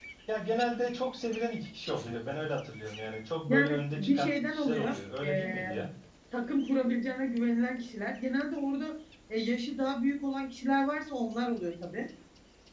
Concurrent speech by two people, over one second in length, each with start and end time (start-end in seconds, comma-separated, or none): 3.5-5.7